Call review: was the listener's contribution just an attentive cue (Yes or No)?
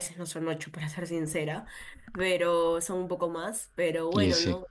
Yes